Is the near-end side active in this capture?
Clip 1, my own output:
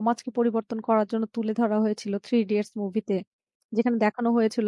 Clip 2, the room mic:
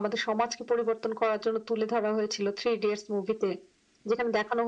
No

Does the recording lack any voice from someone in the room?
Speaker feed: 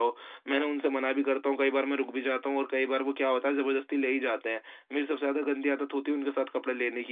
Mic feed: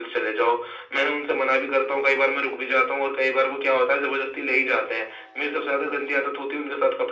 Yes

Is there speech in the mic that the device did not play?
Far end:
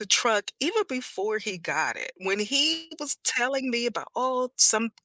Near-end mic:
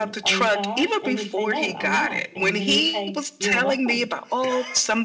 Yes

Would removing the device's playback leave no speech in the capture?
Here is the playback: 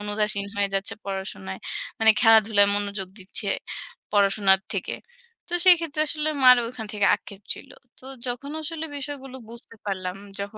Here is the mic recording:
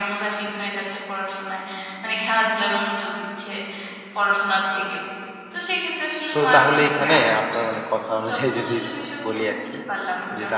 No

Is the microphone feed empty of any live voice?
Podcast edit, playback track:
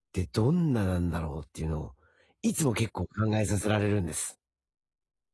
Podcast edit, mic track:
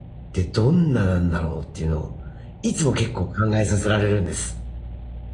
Yes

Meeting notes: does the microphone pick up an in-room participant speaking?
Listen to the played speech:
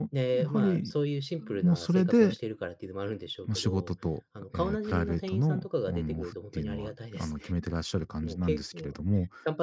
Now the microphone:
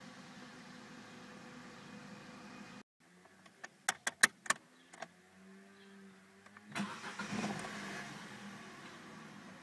No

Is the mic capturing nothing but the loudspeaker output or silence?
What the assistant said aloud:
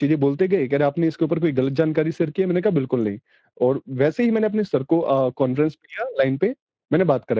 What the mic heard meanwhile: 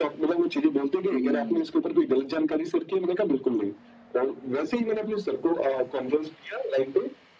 No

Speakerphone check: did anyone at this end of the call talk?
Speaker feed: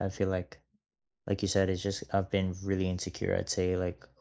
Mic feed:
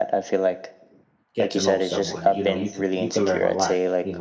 Yes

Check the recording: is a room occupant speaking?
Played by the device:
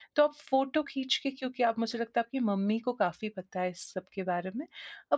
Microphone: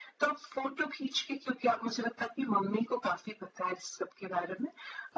No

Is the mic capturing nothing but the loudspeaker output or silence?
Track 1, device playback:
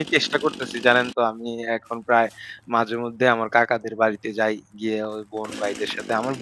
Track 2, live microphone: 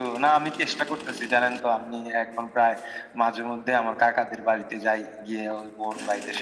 Yes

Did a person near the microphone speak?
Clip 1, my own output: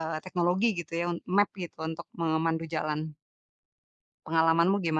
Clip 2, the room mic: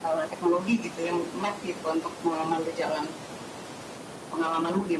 No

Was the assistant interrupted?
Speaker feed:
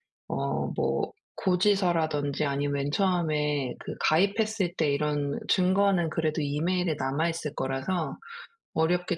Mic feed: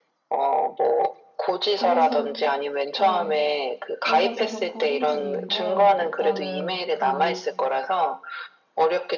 Yes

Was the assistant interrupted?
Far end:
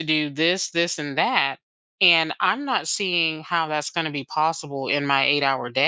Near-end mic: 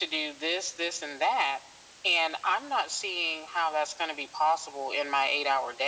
No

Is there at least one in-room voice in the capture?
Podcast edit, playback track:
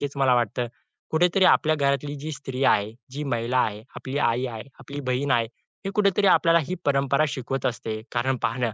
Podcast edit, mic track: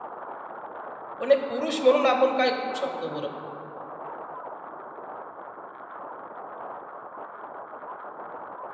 Yes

